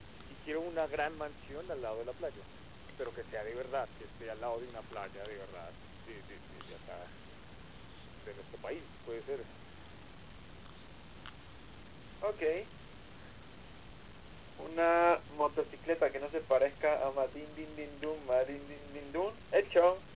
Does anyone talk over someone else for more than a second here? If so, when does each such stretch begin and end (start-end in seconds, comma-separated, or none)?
none